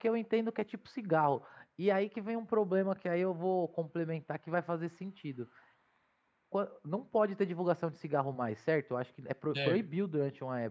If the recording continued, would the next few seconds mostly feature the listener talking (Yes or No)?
No